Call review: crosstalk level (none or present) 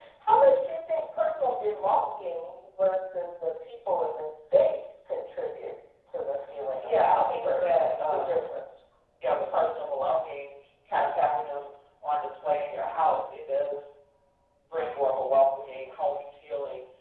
present